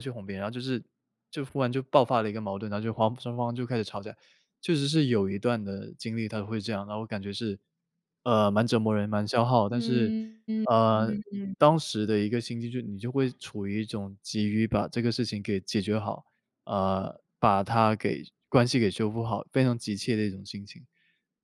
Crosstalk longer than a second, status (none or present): none